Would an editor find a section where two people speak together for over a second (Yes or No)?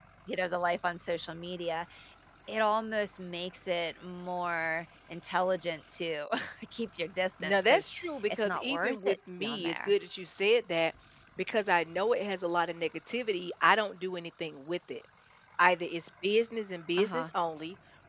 Yes